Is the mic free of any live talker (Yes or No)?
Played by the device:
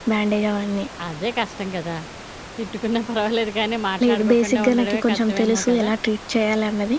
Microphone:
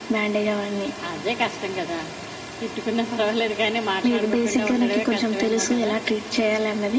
Yes